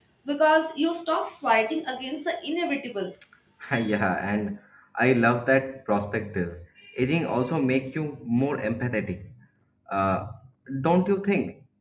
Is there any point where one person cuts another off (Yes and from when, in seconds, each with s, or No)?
No